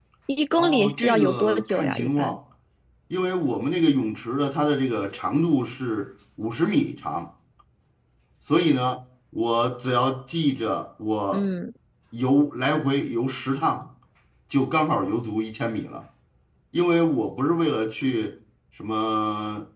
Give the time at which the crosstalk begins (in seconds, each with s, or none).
0.6 s